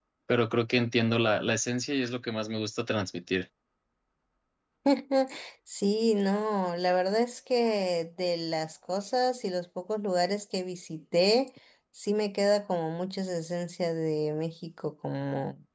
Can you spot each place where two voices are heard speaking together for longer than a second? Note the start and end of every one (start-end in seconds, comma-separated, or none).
none